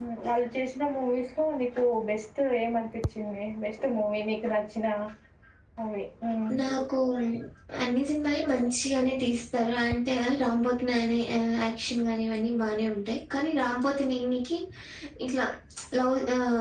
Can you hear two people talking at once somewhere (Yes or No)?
No